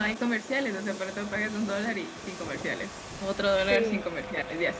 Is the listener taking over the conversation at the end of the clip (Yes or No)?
No